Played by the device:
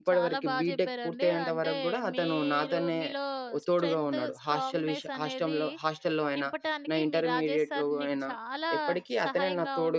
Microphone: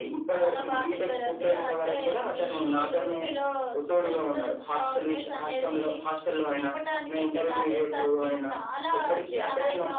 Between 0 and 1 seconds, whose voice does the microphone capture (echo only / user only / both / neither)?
echo only